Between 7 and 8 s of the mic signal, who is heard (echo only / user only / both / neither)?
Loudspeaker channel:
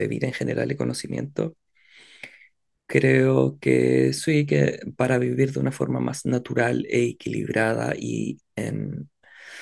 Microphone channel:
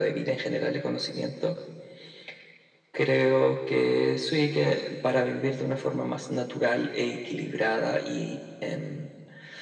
echo only